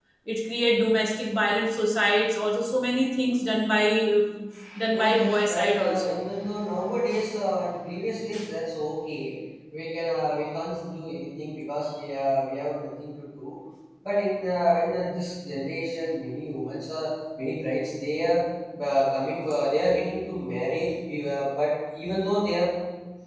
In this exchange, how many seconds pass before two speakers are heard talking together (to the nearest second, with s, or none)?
5 s